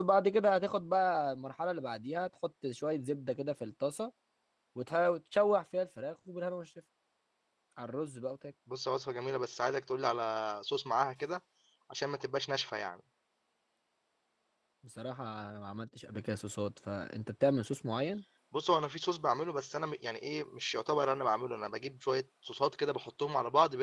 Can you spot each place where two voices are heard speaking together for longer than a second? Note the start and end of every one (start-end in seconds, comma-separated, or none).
none